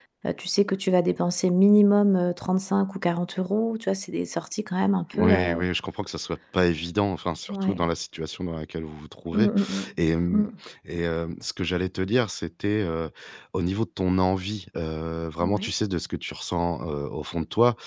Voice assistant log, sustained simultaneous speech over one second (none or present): none